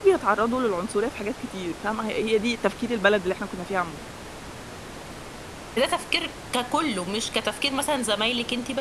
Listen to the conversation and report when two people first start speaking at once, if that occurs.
none

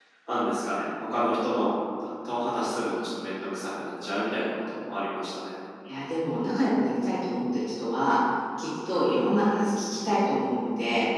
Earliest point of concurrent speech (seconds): none

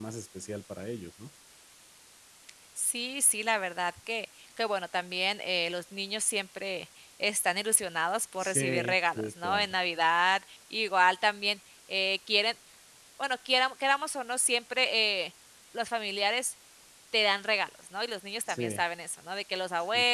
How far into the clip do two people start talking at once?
8.4 s

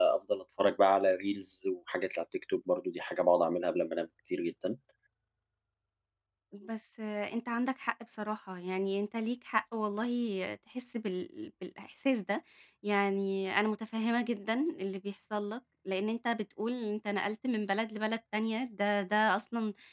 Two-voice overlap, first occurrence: none

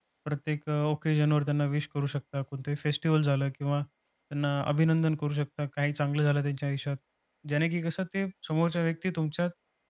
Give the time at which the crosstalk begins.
none

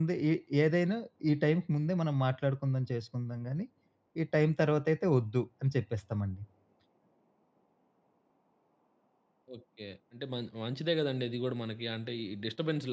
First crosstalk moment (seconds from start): none

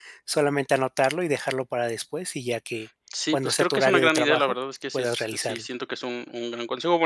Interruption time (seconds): 3.1 s

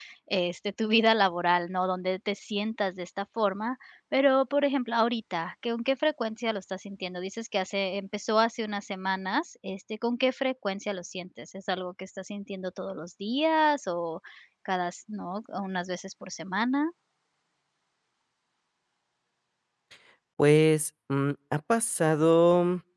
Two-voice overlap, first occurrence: none

